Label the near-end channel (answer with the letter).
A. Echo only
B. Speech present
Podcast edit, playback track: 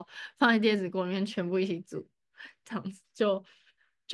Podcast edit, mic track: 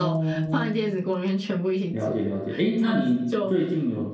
B